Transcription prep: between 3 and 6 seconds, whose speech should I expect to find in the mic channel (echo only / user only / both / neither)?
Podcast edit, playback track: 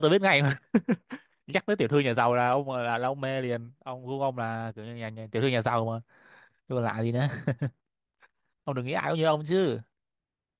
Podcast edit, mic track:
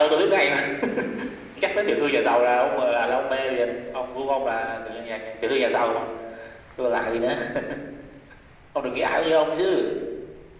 echo only